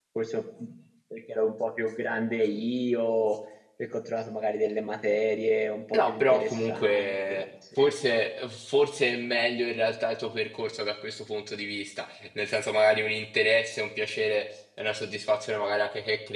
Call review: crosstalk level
present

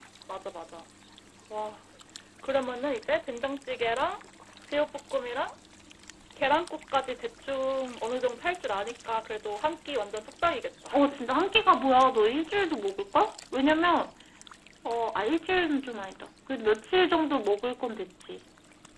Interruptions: none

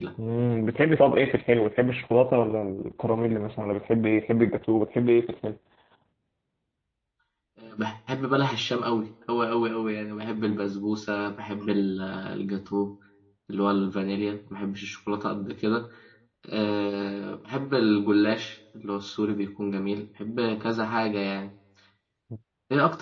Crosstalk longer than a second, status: none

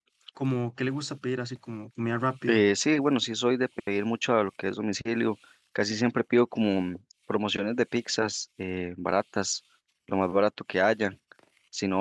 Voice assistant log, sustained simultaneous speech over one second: none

